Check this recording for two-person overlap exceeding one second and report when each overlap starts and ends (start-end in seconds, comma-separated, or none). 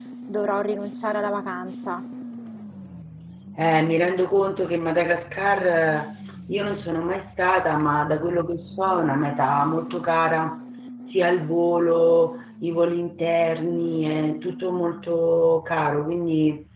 none